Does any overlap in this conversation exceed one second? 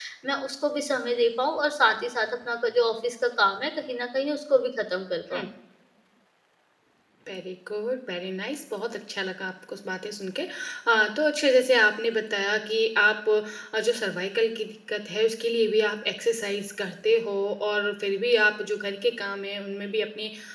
No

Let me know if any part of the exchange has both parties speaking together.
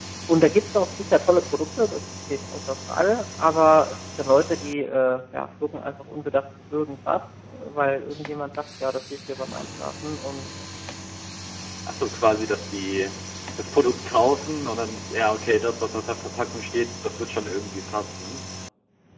No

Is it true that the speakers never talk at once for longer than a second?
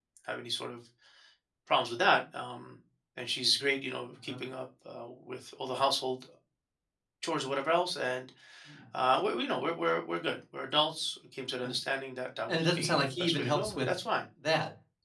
No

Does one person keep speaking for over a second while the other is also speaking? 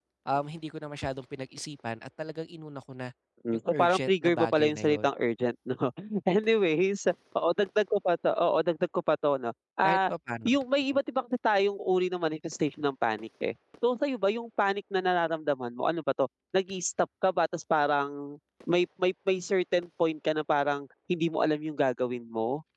Yes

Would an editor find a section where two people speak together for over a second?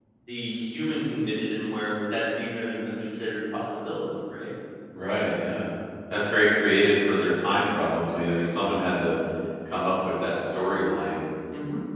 No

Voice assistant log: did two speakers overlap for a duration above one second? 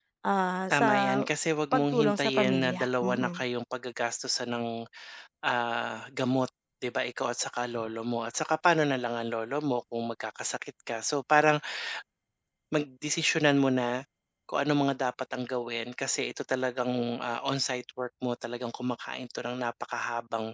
Yes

